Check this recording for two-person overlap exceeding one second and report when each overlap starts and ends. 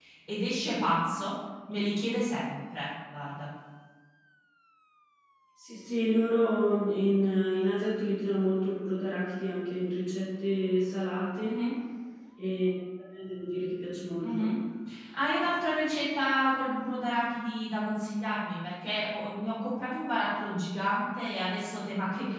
none

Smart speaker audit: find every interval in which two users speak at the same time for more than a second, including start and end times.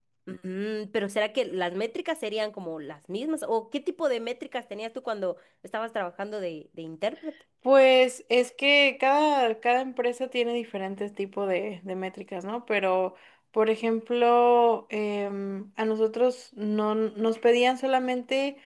none

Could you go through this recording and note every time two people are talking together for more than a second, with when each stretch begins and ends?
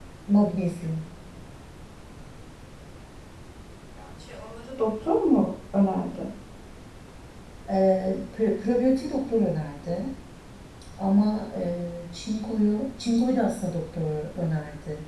none

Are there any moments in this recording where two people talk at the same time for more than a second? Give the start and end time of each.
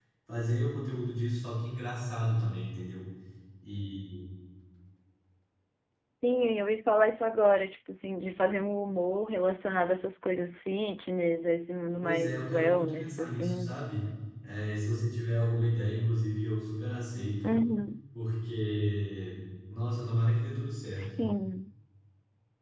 12.0-13.8

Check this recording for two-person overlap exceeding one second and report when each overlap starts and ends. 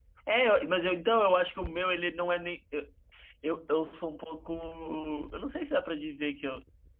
none

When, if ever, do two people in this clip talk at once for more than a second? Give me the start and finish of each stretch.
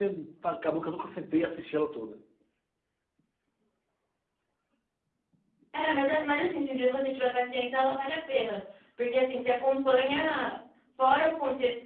none

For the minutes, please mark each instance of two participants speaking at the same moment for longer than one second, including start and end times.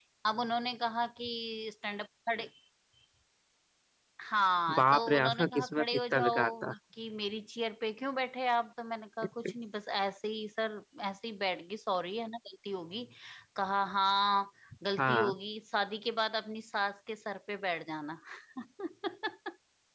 4.8-6.7

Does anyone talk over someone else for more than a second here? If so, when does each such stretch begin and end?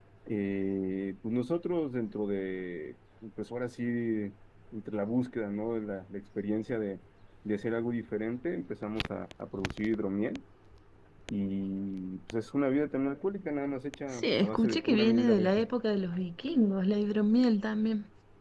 14.1-15.6

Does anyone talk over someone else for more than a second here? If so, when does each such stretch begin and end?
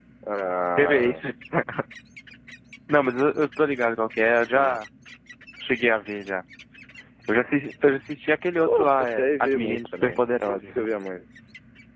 8.7-10.8

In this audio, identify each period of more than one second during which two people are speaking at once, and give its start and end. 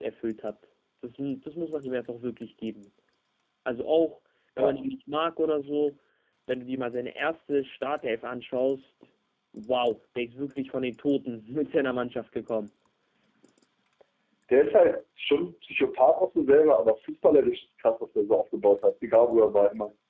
none

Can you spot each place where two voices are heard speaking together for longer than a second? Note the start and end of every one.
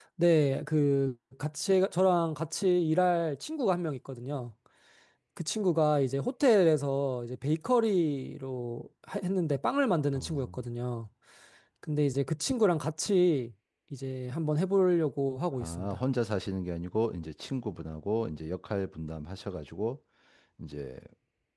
none

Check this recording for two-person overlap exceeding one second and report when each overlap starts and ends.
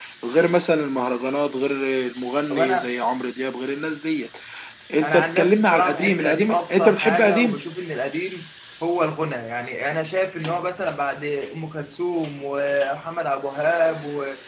5.0-7.6

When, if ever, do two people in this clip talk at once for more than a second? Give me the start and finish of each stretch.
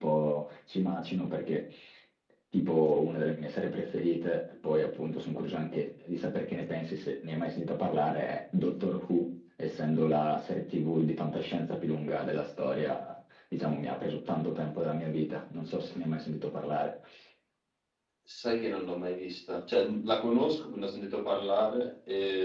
none

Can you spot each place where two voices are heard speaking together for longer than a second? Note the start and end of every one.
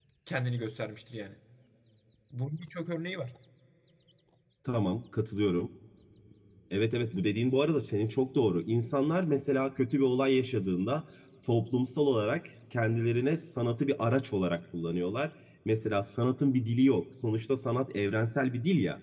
none

